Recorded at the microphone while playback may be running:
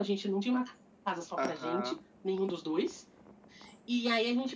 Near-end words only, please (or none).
Aham.